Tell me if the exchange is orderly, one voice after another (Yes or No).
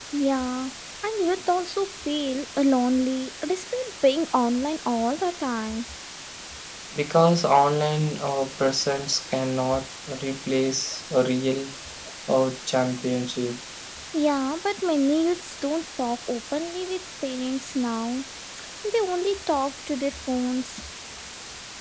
Yes